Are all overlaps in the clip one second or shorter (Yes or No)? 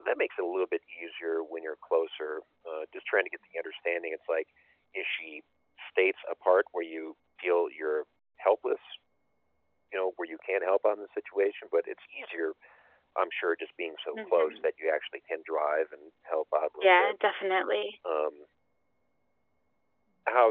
Yes